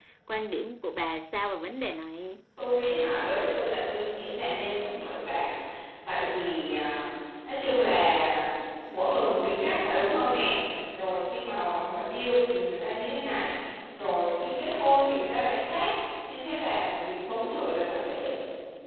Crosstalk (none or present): none